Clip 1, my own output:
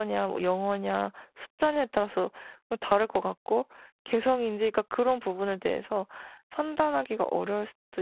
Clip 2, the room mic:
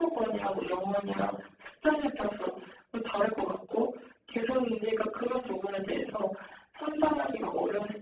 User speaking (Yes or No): No